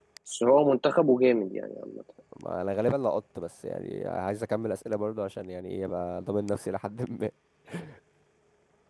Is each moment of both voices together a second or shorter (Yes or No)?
Yes